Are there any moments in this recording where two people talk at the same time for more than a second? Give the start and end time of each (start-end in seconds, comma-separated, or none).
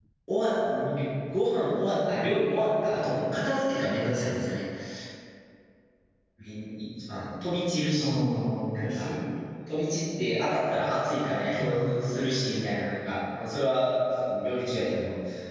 none